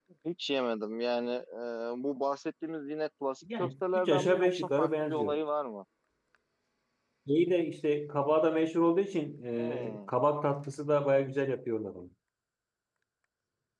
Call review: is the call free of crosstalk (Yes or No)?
No